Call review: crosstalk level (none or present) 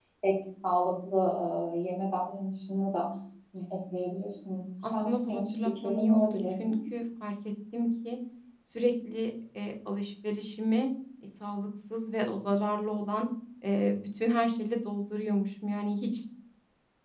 present